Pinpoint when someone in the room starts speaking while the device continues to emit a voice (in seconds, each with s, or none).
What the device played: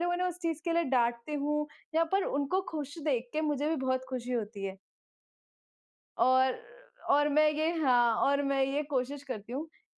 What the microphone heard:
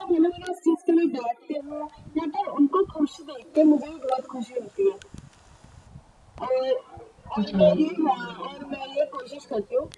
7.4 s